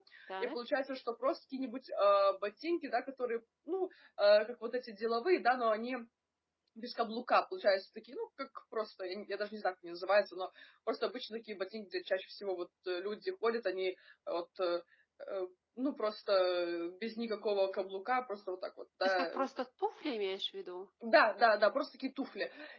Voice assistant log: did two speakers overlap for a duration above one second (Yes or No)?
No